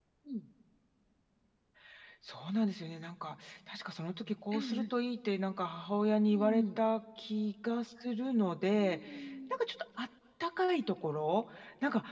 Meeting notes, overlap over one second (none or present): none